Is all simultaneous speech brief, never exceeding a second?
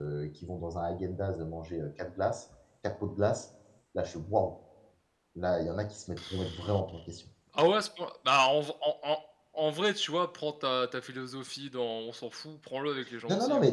Yes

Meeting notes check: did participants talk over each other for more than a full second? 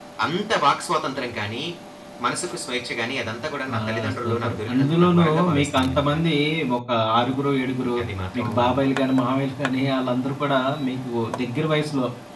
Yes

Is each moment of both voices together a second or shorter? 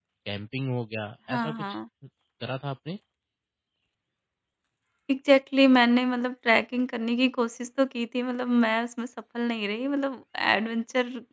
Yes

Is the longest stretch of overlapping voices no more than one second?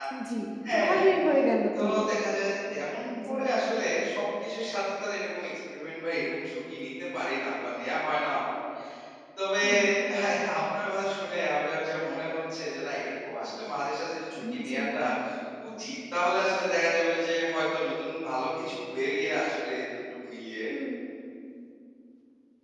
Yes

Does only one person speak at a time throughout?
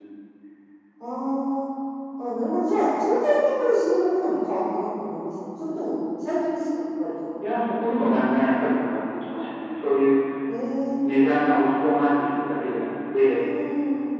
Yes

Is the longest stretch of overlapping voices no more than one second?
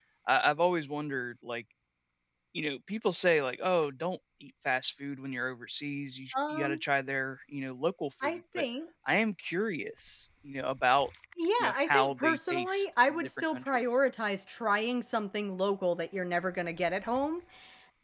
No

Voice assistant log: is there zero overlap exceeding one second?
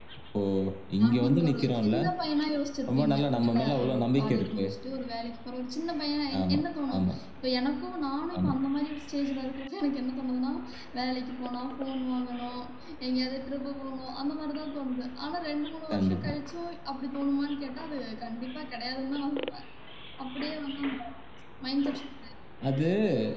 No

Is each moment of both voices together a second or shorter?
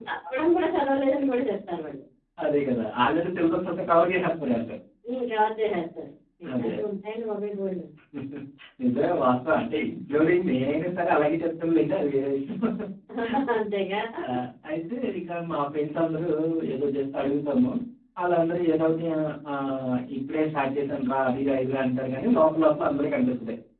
Yes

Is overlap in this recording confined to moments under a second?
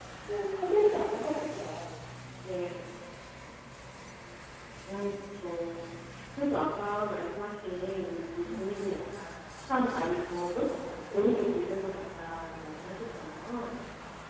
Yes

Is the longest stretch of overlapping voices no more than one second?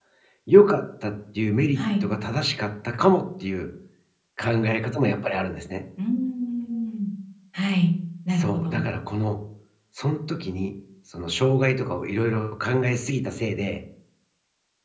Yes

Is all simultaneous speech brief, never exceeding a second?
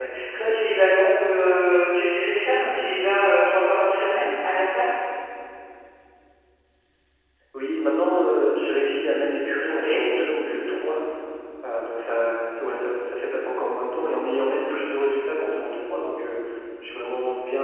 Yes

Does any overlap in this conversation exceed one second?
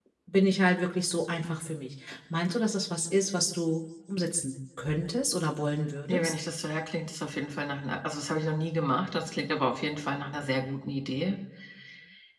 No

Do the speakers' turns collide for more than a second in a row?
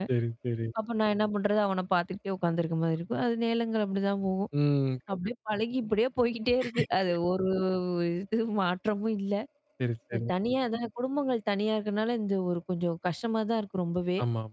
No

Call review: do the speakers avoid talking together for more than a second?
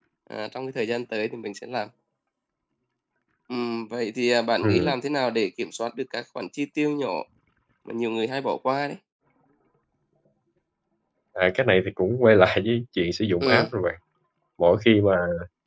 Yes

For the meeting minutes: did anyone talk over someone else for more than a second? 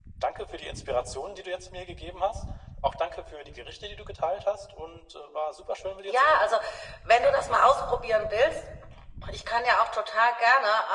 No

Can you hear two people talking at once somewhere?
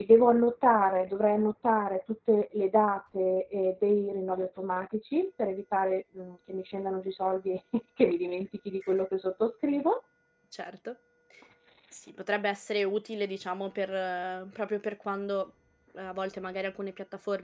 No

